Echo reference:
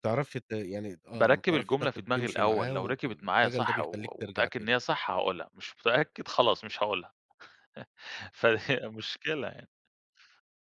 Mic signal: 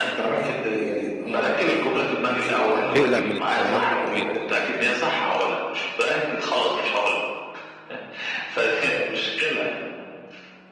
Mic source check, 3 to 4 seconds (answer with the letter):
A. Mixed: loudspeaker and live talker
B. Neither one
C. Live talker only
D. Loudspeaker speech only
A